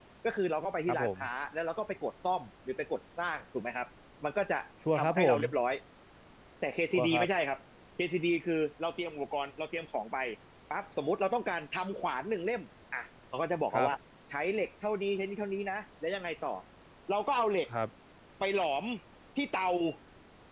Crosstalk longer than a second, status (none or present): none